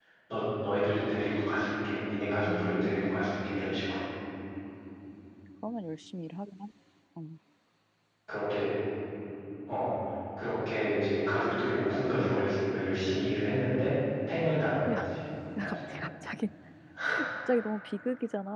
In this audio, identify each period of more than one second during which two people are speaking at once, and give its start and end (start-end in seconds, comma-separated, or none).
2.5-3.8